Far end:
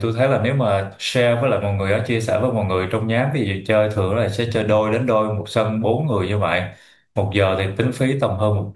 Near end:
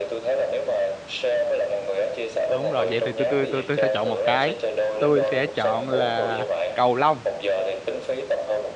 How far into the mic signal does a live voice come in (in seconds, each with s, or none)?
2.5 s